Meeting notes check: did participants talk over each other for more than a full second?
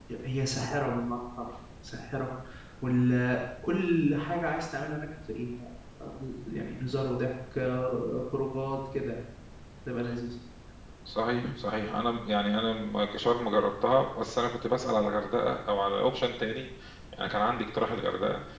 No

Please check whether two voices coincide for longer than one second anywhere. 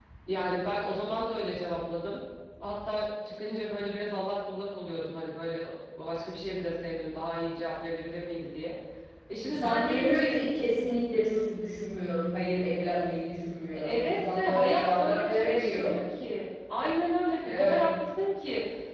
Yes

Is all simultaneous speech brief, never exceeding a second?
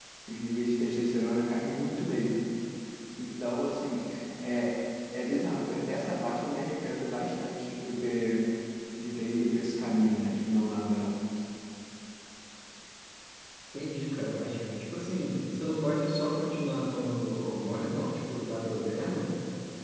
Yes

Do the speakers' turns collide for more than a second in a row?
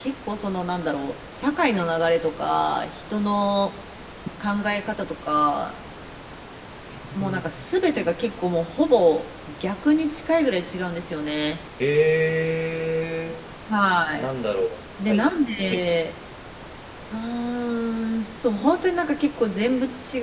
No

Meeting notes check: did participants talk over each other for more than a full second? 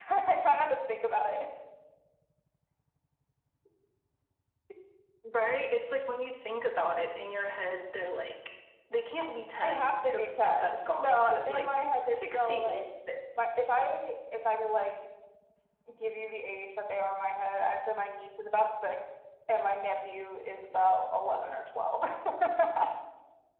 Yes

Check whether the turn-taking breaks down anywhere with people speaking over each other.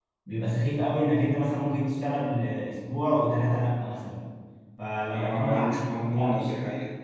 Yes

